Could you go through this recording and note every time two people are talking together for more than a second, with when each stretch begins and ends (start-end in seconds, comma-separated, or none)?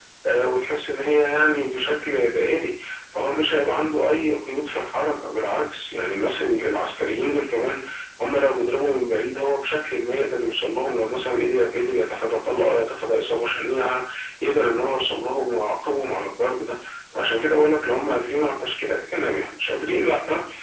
none